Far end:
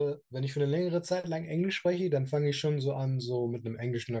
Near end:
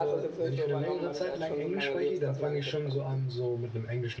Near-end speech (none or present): present